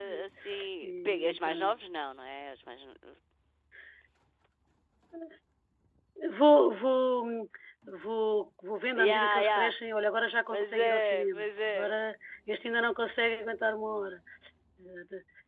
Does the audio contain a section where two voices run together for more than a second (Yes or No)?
Yes